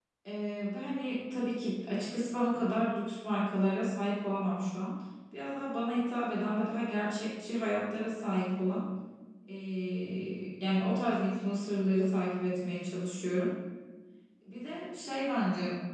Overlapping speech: No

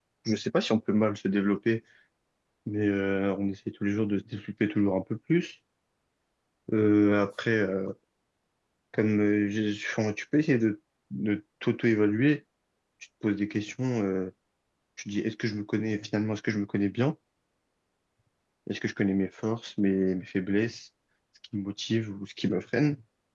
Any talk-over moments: No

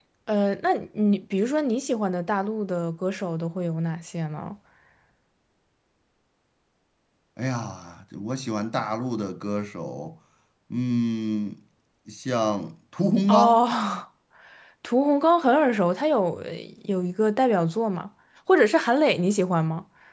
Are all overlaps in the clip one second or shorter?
Yes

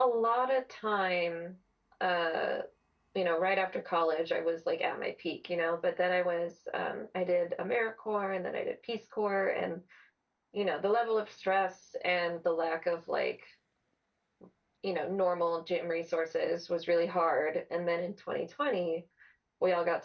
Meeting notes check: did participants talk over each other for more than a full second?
No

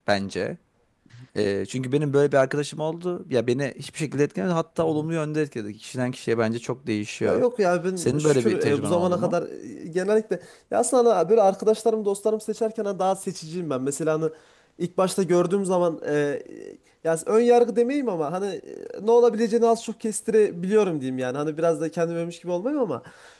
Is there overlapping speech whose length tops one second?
Yes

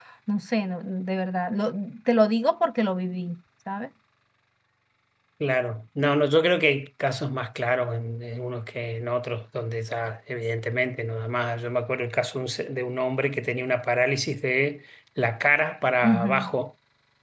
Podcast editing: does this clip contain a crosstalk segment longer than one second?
No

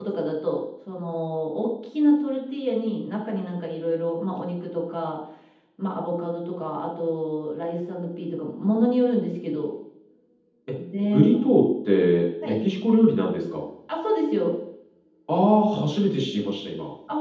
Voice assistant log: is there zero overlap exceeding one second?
Yes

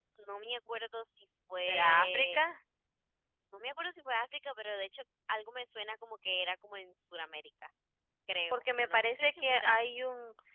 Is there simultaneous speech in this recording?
Yes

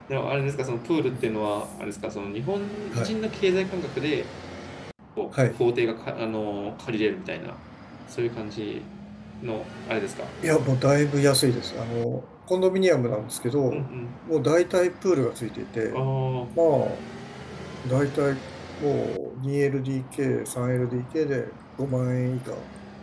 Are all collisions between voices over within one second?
Yes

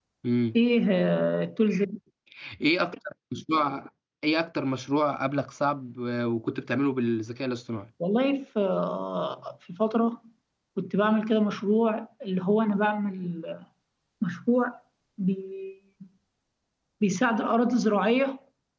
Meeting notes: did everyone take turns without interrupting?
Yes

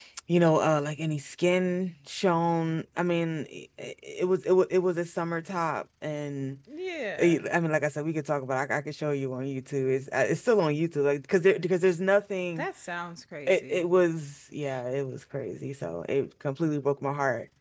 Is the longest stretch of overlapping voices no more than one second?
Yes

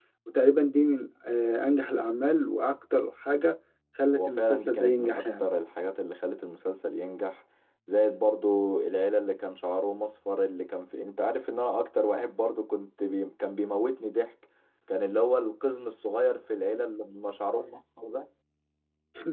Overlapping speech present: Yes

